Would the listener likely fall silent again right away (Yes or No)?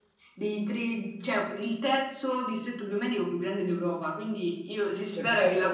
Yes